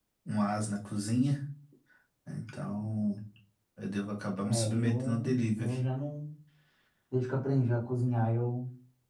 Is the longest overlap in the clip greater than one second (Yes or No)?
Yes